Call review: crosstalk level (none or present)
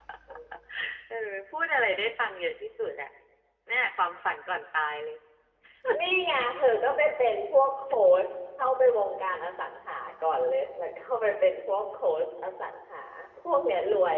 none